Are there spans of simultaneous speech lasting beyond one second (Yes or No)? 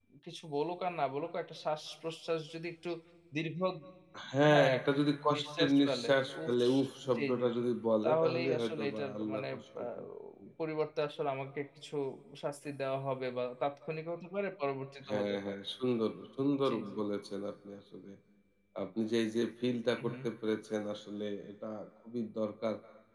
Yes